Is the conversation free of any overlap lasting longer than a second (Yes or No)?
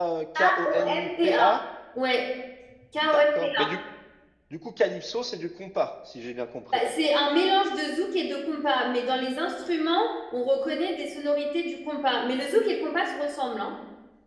No